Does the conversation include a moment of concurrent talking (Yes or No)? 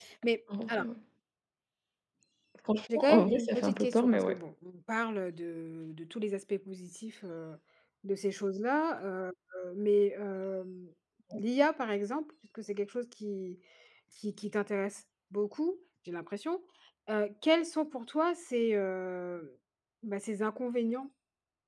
Yes